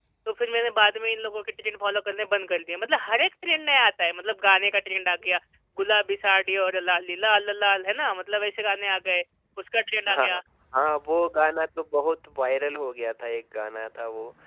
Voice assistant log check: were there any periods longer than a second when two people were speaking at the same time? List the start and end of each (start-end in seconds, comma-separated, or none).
none